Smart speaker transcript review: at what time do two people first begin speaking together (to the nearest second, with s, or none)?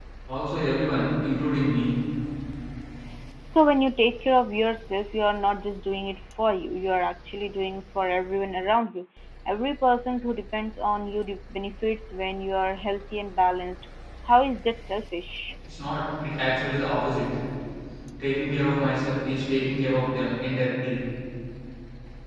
none